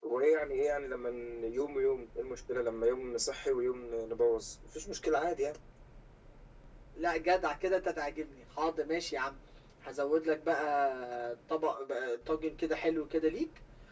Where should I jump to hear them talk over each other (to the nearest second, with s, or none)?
none